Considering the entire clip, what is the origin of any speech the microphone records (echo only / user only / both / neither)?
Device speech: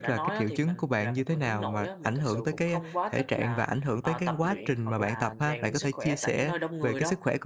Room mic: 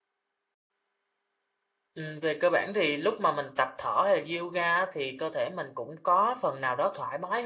user only